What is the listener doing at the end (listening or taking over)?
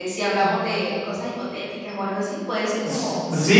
taking over